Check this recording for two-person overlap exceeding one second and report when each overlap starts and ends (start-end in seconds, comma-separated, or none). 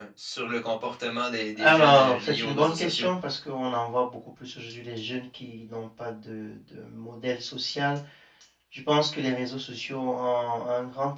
1.6-3.1